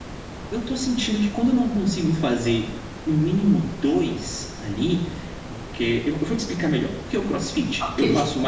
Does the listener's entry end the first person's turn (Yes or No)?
No